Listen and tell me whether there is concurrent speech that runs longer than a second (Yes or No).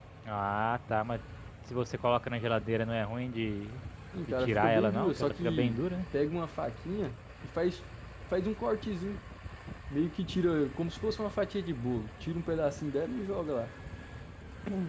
Yes